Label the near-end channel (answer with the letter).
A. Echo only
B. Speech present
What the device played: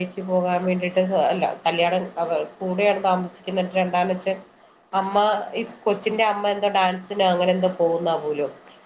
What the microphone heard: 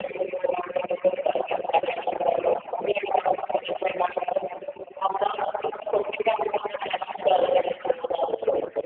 A